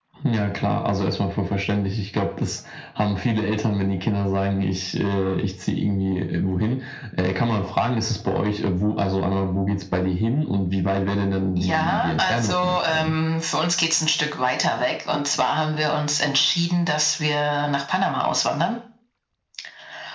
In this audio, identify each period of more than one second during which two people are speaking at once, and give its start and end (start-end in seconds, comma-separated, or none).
11.6-13.2